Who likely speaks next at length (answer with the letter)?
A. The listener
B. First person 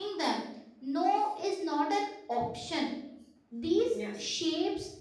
B